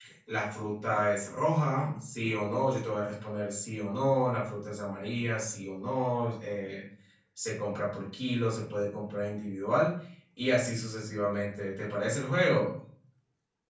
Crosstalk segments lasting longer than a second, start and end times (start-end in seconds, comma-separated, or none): none